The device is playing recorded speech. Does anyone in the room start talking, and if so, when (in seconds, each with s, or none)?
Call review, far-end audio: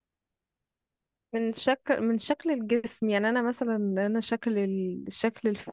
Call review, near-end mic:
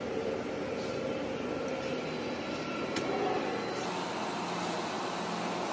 none